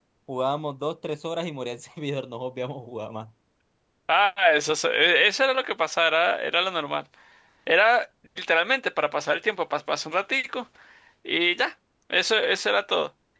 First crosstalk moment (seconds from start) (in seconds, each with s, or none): none